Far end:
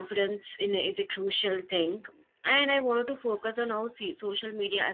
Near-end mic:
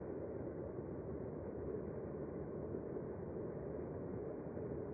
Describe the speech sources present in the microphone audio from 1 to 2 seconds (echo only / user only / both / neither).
neither